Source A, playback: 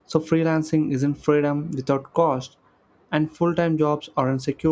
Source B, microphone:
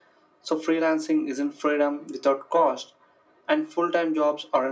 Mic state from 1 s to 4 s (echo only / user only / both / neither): echo only